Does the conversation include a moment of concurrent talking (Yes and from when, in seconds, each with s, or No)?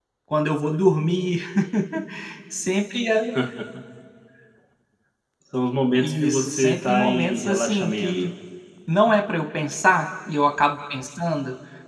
Yes, from 6.0 s